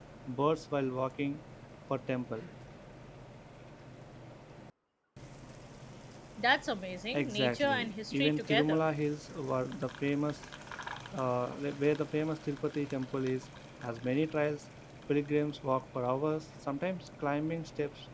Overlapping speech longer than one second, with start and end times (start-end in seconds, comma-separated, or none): 7.1-8.8